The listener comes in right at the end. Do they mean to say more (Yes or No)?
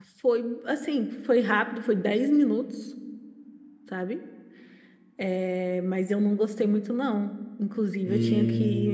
No